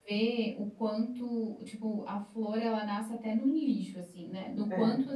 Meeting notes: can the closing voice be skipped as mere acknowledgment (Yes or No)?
Yes